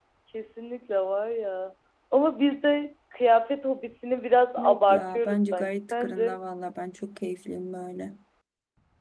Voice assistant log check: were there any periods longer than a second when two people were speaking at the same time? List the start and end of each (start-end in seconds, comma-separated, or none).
4.6-6.4